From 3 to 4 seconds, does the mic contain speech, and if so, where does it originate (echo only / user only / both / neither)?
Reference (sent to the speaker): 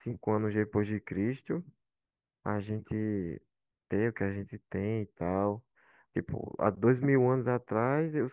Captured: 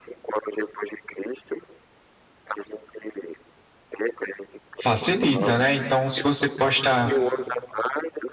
echo only